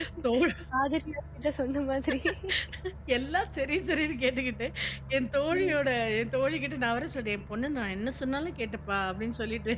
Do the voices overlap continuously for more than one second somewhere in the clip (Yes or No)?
No